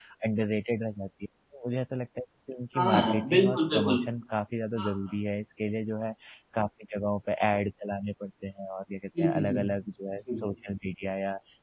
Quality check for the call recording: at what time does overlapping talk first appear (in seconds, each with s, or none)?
2.8 s